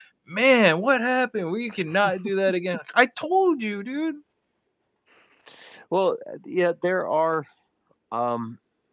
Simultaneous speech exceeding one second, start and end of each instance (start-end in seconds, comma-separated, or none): none